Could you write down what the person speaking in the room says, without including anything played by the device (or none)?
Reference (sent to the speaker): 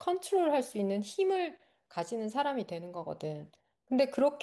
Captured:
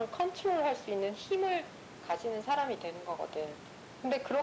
none